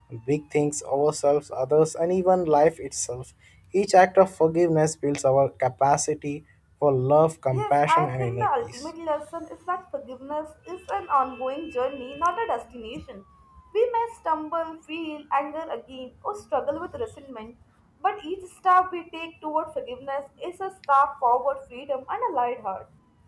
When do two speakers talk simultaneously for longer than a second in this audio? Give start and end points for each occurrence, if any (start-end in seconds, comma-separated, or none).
7.5-8.8